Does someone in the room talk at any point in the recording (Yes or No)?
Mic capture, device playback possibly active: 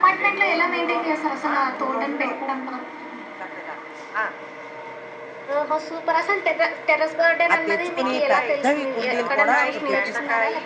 Yes